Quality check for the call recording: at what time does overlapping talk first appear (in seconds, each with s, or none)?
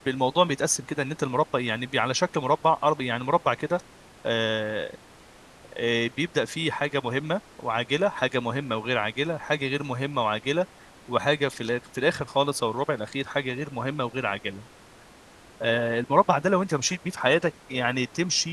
none